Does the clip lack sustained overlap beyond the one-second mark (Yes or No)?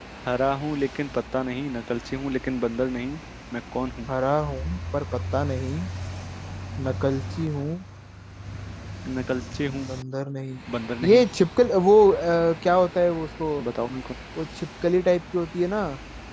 Yes